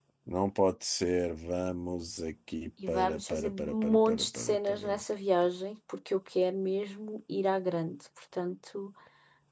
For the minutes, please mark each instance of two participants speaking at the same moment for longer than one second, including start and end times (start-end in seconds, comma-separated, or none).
2.9-5.0